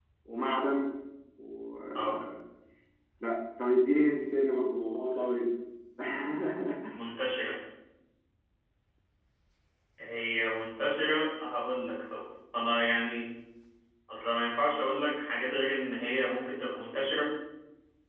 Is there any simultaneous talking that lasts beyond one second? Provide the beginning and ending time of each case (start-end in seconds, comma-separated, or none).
none